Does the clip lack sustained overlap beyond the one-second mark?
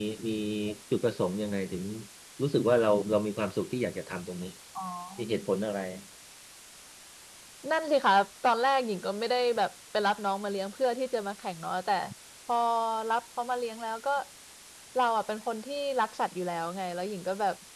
Yes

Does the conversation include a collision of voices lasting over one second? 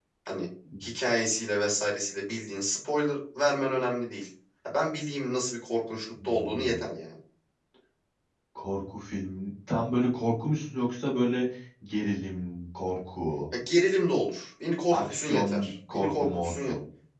Yes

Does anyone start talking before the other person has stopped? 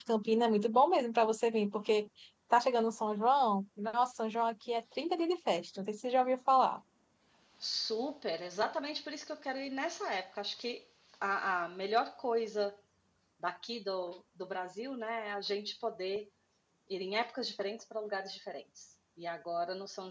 No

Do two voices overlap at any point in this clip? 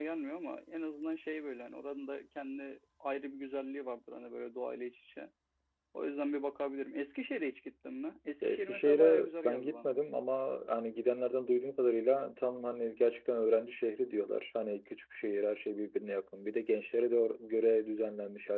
Yes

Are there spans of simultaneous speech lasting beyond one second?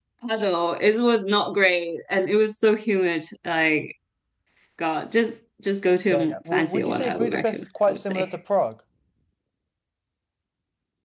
Yes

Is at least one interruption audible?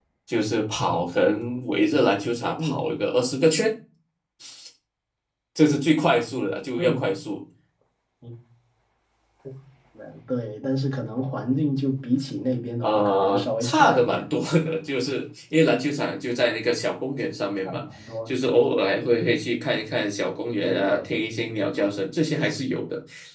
Yes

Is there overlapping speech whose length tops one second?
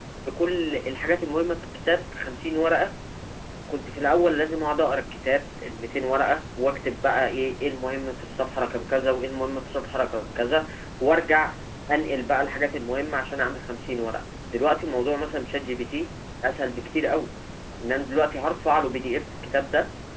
No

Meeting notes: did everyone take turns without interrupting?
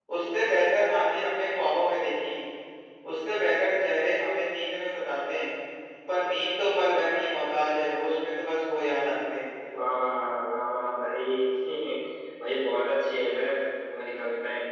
Yes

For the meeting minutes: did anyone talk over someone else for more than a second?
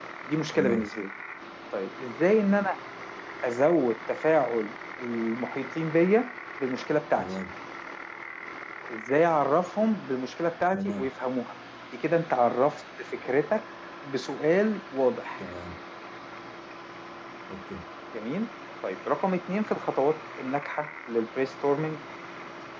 No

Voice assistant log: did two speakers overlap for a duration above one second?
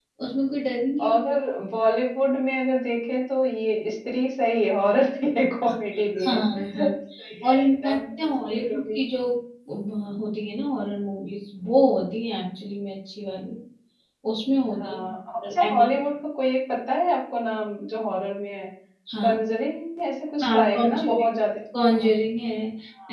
Yes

